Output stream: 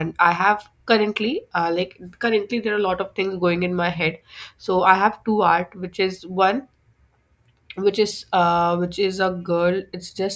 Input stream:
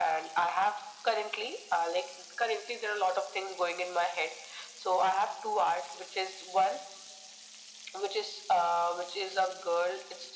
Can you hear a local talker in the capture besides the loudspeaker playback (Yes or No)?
No